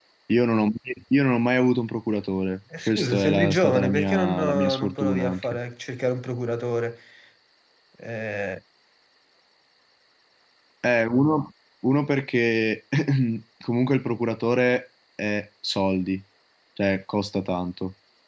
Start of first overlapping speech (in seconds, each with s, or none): 2.7 s